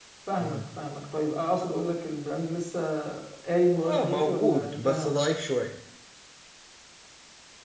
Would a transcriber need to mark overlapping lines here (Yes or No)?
Yes